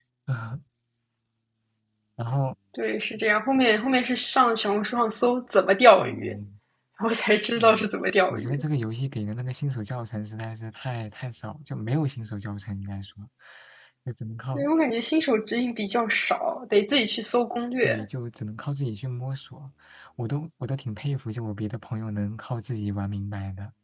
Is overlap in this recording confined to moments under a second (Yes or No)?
Yes